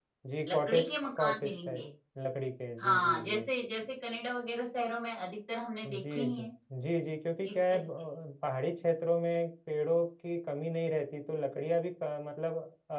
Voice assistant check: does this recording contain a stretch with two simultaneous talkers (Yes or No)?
Yes